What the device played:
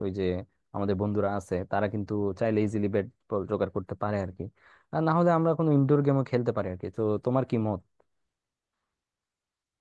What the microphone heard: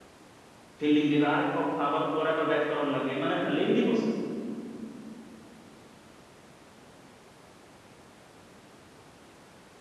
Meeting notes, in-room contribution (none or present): present